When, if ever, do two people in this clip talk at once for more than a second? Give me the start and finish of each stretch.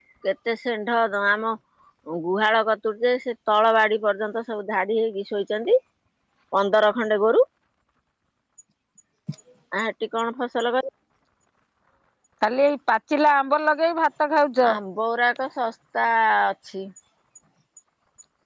none

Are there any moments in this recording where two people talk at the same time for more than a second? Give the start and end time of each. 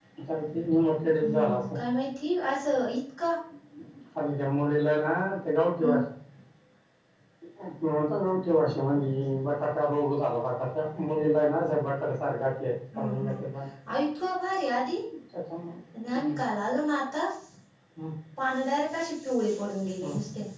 none

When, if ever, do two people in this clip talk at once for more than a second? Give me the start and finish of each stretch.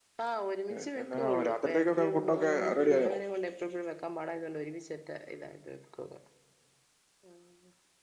0.8-3.1

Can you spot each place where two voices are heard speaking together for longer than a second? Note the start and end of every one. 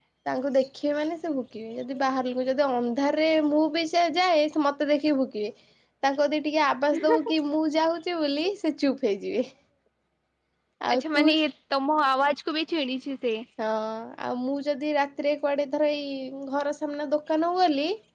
none

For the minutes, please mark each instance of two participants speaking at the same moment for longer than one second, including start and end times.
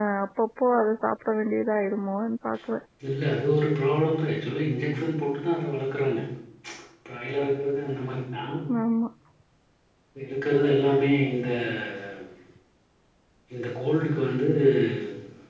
none

